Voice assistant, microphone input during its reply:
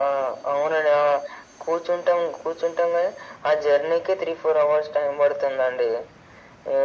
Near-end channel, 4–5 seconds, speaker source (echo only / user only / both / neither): echo only